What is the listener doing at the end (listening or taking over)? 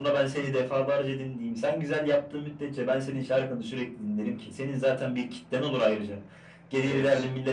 listening